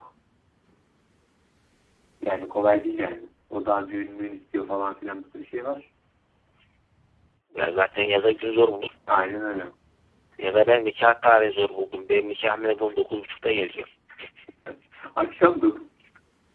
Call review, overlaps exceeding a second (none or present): none